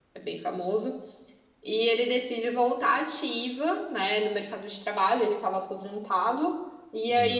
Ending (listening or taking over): listening